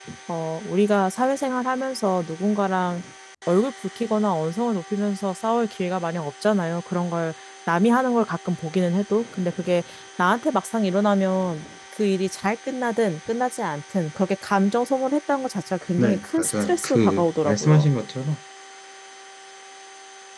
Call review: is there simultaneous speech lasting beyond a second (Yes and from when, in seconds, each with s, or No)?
Yes, from 16.0 s